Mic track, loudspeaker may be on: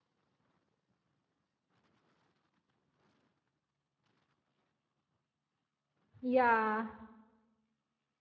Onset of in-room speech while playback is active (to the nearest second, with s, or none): 6 s